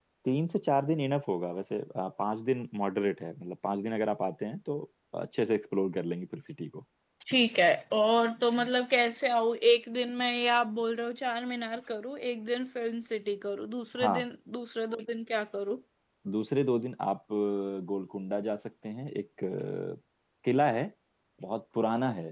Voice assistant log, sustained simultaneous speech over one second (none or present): none